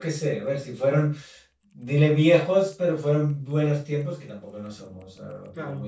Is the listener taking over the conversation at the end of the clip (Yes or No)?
Yes